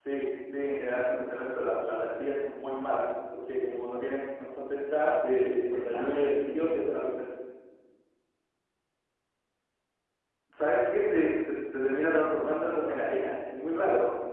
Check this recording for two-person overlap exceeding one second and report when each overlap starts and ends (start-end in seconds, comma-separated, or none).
5.1-7.1